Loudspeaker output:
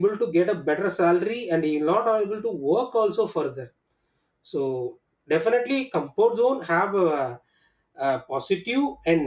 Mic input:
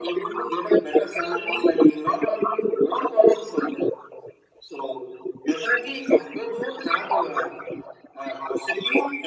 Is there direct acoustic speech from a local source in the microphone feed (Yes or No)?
No